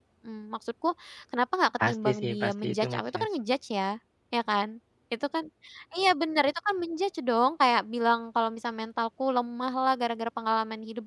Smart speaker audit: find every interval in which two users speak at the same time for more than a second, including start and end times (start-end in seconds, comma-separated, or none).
1.9-3.3